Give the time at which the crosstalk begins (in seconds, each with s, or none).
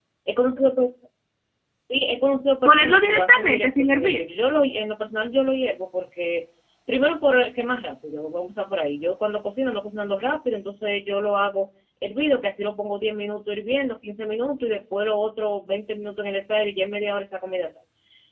2.6 s